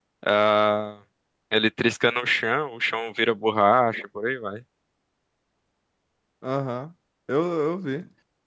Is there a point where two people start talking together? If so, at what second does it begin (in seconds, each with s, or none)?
none